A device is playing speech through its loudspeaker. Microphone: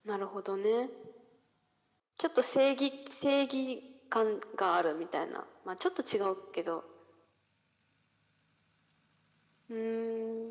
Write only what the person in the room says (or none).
none